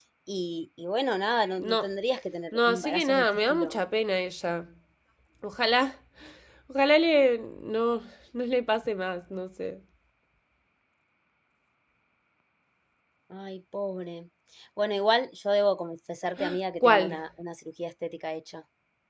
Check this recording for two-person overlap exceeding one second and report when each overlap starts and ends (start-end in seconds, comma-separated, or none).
2.5-3.7